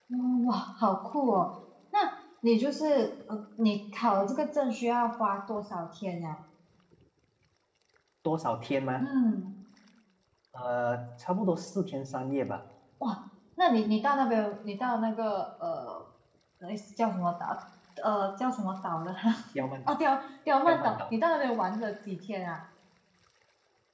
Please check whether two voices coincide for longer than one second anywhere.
No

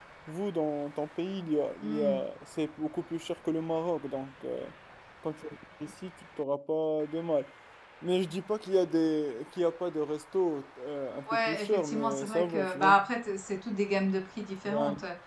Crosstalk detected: Yes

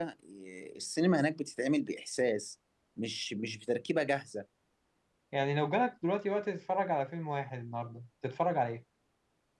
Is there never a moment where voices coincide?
Yes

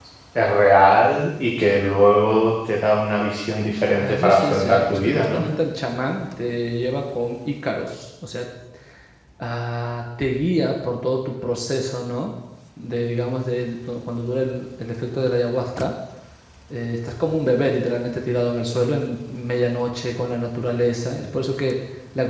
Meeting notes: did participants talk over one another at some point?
Yes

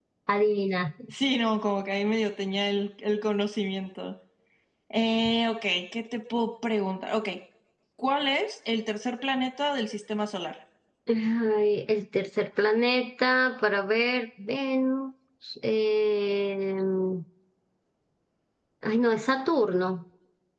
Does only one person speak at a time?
Yes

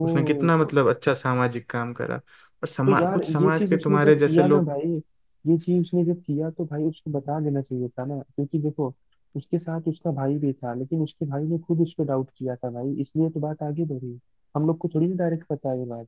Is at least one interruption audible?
Yes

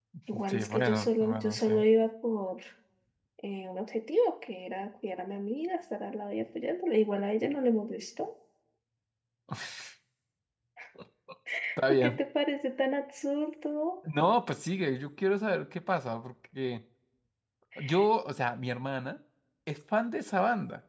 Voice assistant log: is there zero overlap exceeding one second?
No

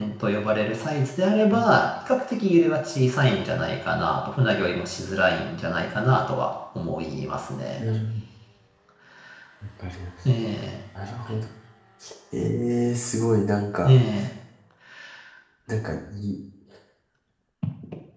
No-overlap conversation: Yes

